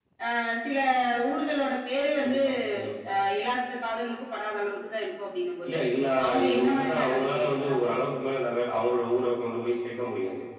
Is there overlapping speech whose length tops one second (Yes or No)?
Yes